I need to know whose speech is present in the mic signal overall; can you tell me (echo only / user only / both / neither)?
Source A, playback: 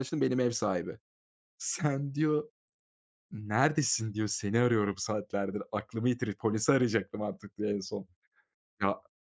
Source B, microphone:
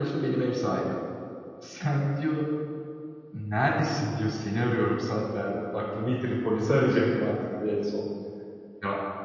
echo only